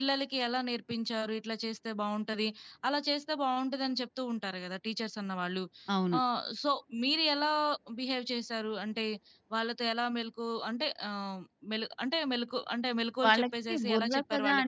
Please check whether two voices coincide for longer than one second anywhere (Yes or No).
Yes